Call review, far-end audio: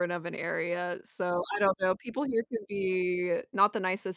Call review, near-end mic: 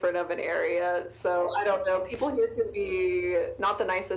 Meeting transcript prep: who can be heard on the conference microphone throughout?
echo only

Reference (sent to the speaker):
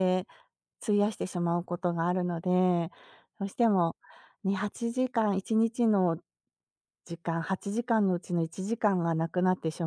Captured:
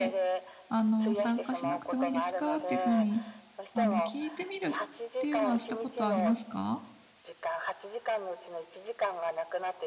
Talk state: both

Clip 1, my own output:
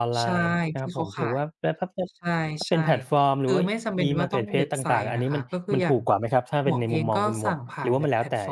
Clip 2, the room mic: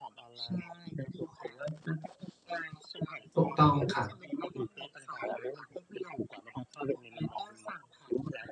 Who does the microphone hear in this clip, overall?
both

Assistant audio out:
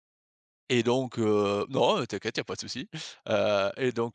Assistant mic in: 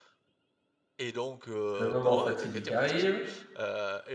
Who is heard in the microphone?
both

